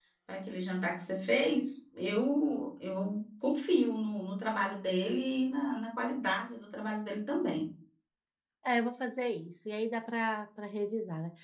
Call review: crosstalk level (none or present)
none